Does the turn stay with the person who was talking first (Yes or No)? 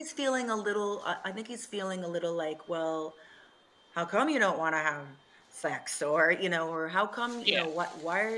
Yes